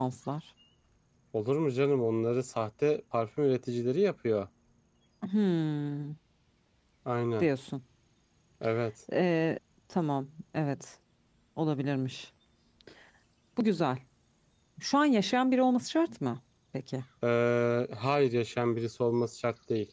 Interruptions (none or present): none